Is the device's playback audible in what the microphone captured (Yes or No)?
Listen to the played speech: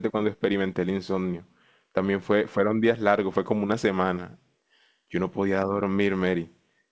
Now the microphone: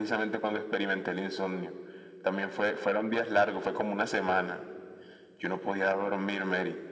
Yes